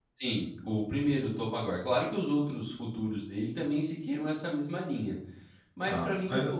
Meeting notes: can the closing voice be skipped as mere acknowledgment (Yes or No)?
No